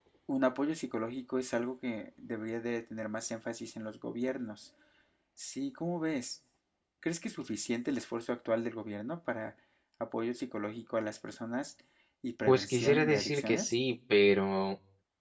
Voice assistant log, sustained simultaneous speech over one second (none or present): present